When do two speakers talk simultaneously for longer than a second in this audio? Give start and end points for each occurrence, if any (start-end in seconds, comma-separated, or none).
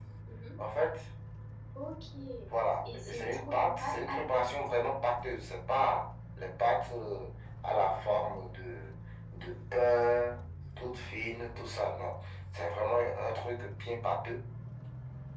2.8-4.5